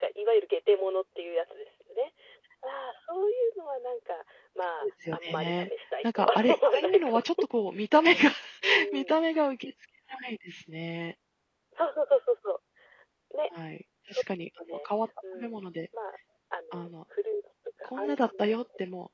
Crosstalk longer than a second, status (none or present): present